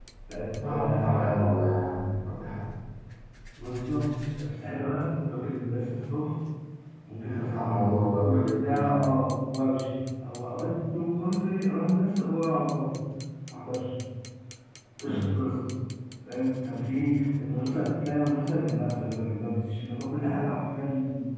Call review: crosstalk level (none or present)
present